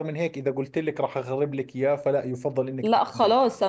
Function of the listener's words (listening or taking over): taking over